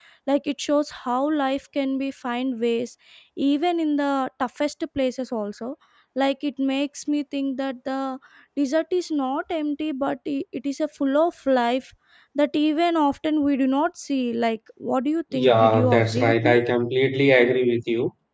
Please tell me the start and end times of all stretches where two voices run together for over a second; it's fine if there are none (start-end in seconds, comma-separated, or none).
15.3-16.6